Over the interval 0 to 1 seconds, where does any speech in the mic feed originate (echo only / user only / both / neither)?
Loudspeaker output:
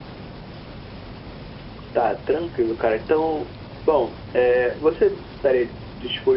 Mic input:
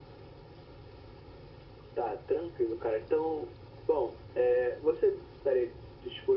neither